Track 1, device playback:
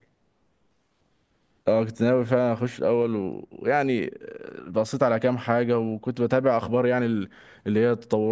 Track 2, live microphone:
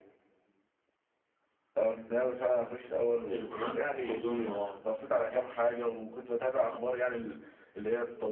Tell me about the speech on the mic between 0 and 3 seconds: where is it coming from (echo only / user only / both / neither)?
echo only